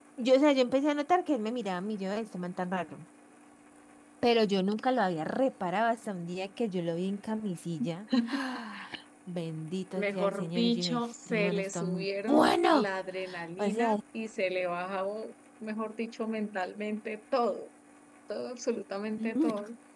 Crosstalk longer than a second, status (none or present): present